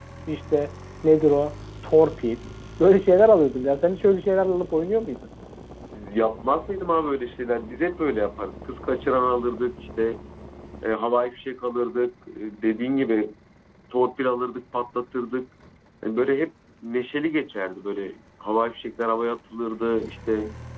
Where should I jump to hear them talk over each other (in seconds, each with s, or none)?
none